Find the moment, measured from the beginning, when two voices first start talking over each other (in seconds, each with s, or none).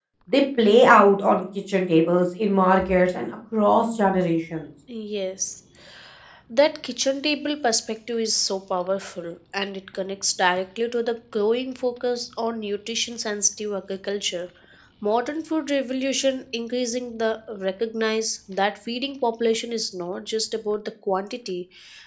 none